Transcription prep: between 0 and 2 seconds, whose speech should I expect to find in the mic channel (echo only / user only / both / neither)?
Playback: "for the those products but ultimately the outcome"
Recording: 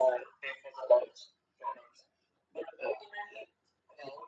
echo only